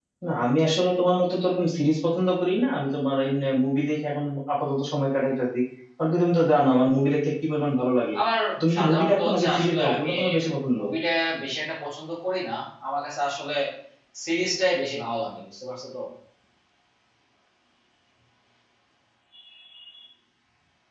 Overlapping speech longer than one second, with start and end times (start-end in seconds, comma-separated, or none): 8.7-10.1